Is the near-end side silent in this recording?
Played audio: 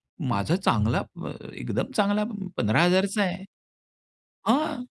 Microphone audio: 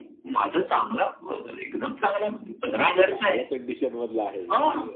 No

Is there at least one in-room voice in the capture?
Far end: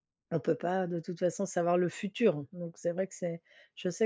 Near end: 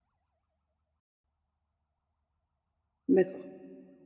Yes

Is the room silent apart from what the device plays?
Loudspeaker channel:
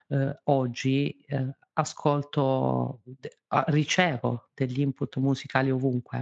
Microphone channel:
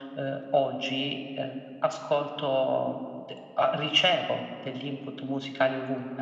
Yes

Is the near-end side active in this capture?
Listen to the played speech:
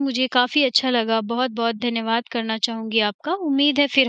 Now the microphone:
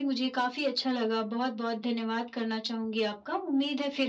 No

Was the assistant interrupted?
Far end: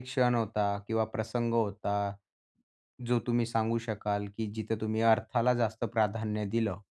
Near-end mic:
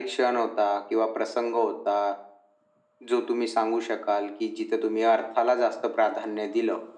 No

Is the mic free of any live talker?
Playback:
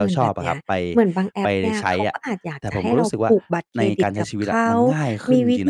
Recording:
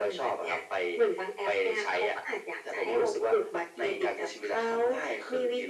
Yes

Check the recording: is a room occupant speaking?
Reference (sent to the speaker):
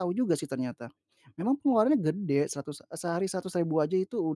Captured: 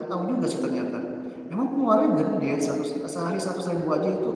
No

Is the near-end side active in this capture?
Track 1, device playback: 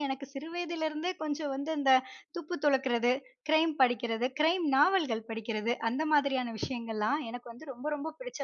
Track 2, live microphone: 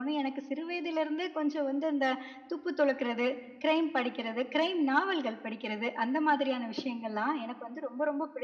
No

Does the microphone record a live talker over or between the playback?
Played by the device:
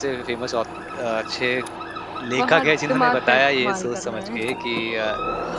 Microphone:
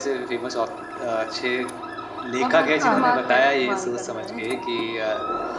Yes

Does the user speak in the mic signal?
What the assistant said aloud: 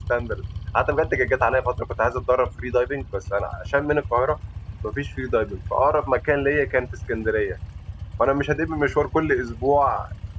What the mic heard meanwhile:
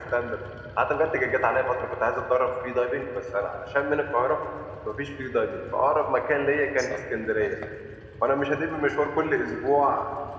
Yes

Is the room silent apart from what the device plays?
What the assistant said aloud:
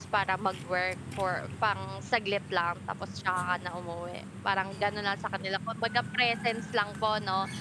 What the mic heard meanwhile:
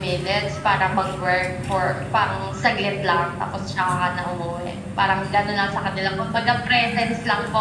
Yes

